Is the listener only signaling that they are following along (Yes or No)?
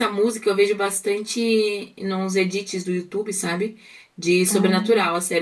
Yes